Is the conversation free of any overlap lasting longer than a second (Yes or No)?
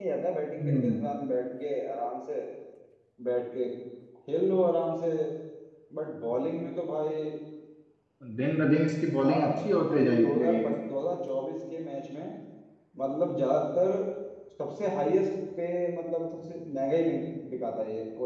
No